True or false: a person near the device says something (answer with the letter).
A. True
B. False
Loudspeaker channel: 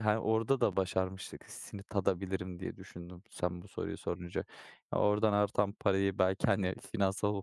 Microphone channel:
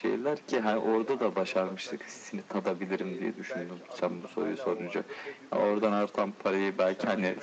A